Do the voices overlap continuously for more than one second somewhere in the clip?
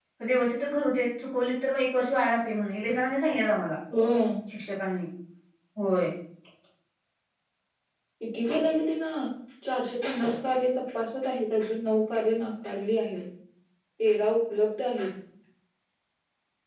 No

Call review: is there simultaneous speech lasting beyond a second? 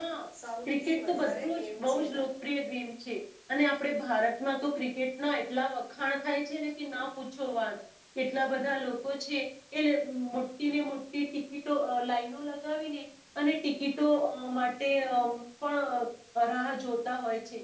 Yes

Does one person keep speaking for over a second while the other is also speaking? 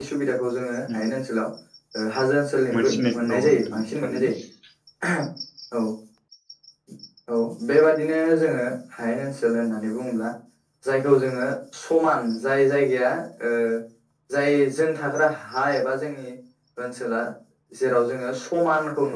Yes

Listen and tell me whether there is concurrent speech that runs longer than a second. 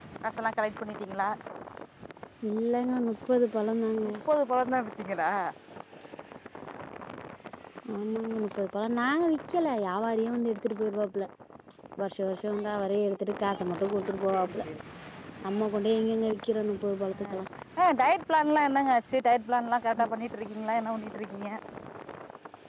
No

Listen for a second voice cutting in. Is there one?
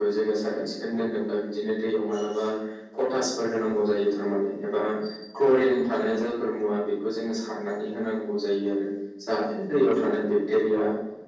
No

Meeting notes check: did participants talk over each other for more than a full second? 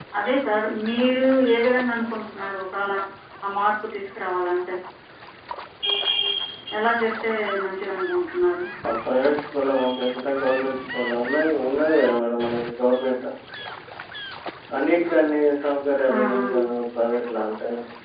No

